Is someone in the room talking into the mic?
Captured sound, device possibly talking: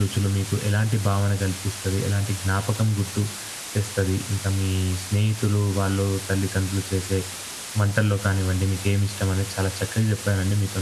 Yes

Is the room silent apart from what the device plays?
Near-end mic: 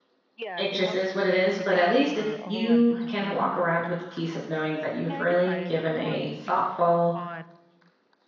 No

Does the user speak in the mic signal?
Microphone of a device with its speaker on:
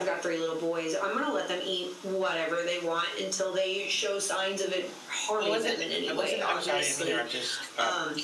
Yes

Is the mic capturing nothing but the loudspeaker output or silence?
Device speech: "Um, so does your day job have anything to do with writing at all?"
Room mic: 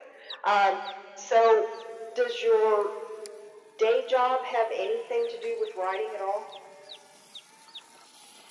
Yes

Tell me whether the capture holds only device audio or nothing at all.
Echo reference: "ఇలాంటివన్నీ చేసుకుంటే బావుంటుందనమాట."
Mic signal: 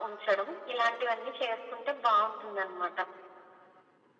Yes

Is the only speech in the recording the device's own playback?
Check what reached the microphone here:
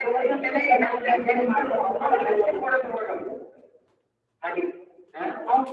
Yes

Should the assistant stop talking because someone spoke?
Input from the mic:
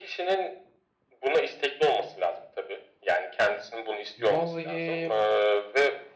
Yes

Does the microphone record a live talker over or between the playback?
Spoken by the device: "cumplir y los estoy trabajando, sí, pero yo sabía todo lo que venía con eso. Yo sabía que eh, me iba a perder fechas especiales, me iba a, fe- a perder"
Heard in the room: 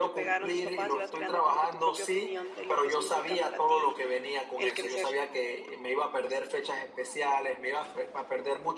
Yes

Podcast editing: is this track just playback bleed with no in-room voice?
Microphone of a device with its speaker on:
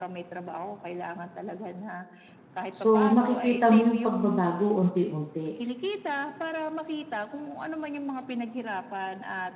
No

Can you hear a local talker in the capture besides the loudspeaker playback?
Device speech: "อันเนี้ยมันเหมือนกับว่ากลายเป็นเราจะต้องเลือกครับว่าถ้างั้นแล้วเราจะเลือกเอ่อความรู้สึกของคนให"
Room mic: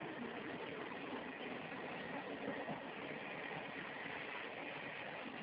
No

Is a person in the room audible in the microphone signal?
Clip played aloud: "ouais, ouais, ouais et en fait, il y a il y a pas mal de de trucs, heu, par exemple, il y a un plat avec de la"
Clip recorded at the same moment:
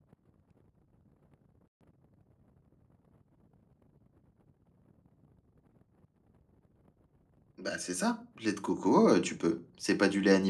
Yes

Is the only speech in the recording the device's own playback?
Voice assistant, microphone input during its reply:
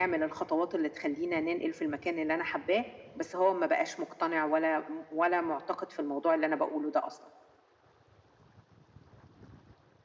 Yes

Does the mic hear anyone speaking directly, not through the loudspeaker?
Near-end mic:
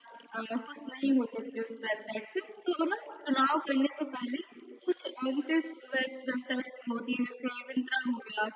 No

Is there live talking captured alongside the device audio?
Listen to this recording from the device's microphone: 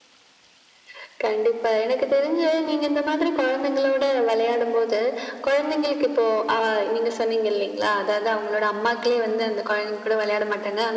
No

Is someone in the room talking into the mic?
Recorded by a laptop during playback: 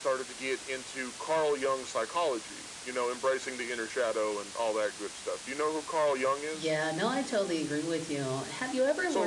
Yes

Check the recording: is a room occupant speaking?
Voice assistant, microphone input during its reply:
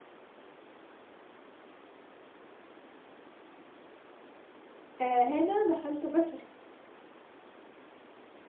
Yes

